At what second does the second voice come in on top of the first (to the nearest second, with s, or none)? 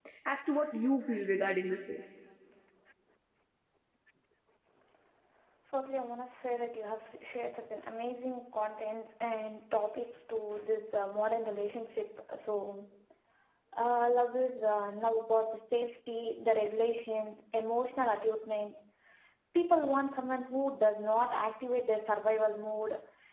none